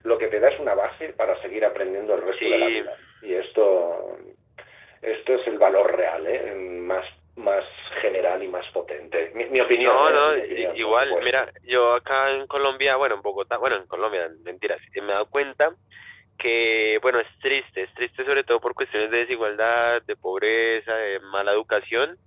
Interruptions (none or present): present